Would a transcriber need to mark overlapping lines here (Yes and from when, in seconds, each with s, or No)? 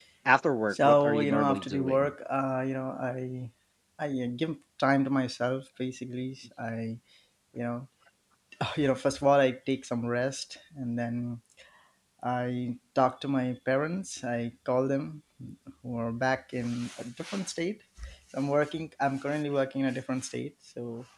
Yes, from 0.7 s